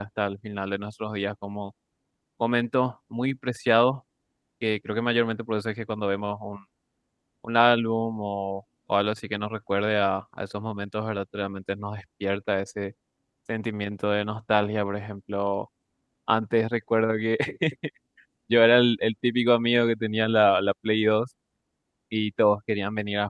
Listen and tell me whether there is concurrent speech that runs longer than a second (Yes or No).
No